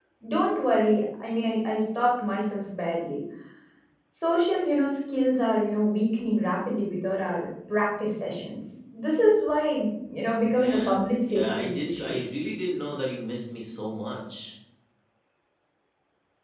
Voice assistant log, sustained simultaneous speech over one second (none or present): present